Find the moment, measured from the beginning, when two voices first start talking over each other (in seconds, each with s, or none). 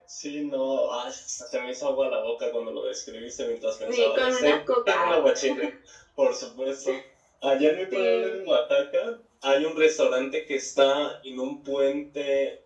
3.9 s